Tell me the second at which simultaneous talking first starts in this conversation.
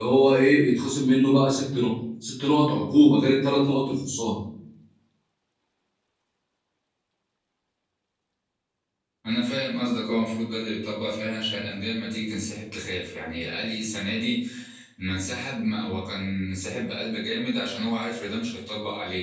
none

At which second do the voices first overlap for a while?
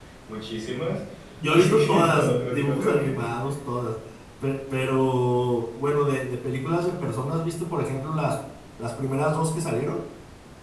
1.5 s

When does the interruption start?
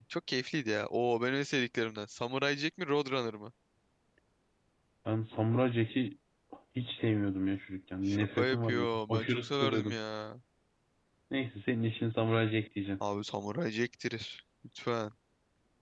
8.1 s

